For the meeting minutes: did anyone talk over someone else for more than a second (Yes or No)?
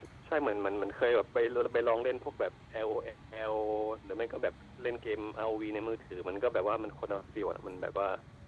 No